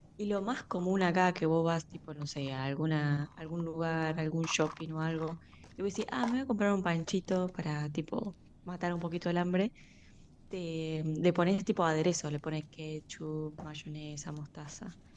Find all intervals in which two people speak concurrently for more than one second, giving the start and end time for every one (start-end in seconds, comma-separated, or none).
none